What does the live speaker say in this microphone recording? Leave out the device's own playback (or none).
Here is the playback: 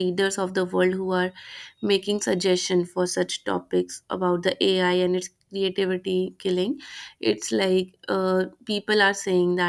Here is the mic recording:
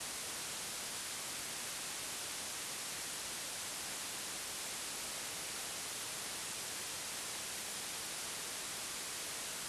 none